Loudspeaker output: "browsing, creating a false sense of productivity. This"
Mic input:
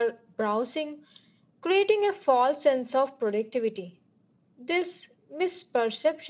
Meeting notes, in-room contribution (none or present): none